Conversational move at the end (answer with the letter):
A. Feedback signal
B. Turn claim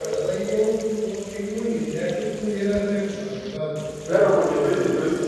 B